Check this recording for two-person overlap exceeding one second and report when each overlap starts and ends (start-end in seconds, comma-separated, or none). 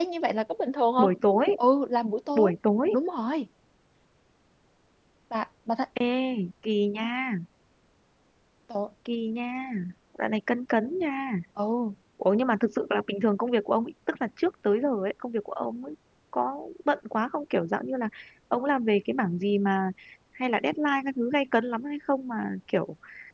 none